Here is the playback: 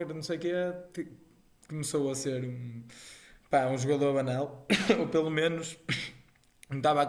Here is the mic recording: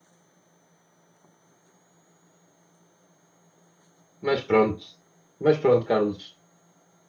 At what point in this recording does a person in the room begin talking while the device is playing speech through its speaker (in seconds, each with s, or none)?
4.2 s